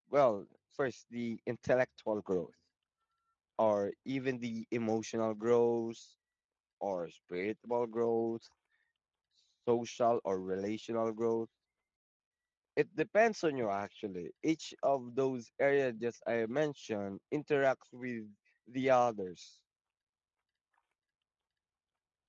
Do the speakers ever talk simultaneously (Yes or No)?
No